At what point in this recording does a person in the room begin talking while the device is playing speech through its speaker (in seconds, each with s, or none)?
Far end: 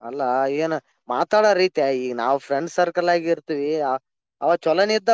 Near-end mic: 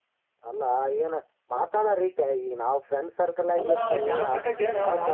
3.6 s